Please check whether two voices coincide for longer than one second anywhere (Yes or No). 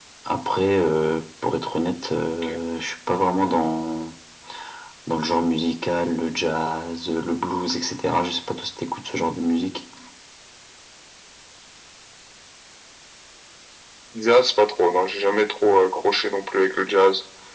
No